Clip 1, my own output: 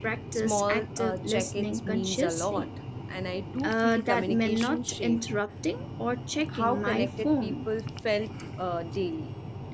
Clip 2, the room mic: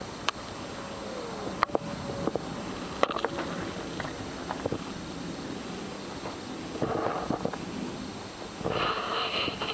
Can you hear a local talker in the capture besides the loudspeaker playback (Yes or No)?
No